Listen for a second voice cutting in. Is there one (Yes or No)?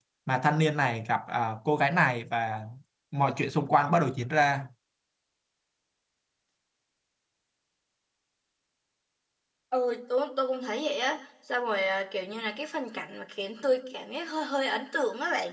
No